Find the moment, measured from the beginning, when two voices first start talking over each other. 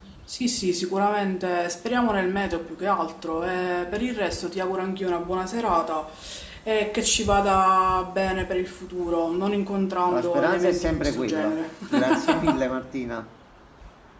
10.1 s

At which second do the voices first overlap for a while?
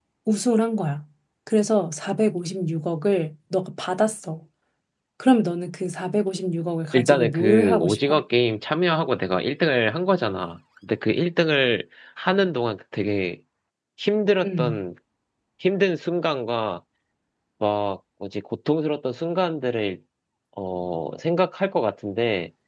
6.9 s

